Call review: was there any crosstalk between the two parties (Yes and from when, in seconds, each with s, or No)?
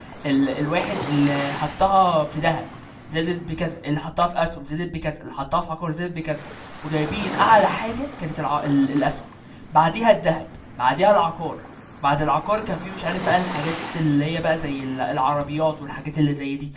No